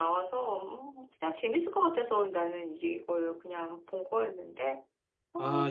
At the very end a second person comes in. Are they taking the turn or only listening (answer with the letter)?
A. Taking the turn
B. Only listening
A